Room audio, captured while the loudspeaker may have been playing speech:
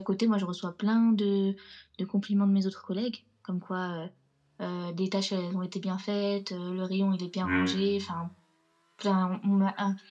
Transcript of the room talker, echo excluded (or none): Mmh.